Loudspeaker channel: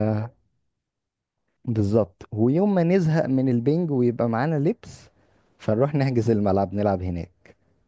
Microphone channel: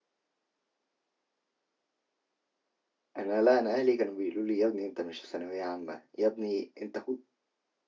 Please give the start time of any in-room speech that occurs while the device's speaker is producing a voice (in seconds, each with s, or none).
3.2 s